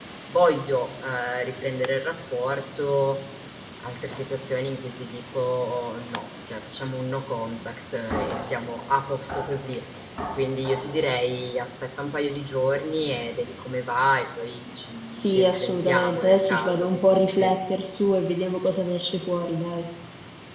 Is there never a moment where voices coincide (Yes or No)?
No